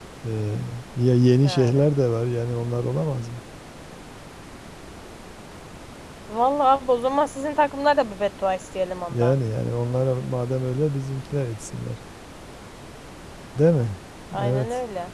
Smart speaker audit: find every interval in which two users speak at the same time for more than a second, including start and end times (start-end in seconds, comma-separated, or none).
none